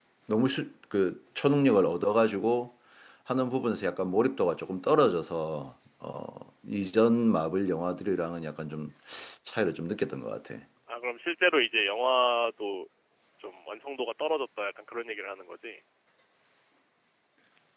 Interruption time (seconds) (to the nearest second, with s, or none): none